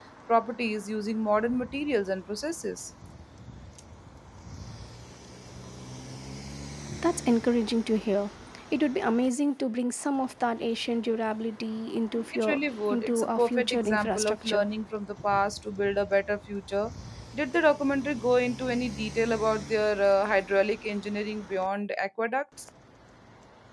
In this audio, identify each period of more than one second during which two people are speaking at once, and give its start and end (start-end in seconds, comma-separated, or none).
12.3-14.6